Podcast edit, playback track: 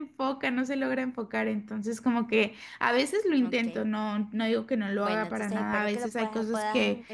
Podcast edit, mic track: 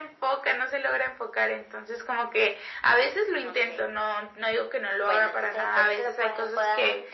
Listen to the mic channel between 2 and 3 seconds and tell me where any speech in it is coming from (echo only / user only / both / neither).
echo only